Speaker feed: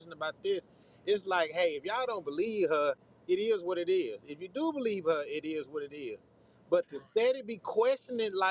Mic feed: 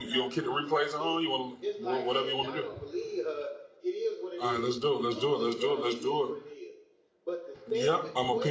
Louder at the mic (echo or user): user